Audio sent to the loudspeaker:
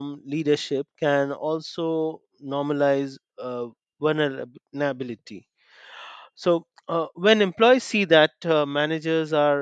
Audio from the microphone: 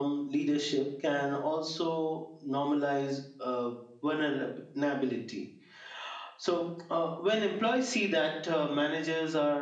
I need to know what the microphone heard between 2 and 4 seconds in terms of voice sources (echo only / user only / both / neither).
echo only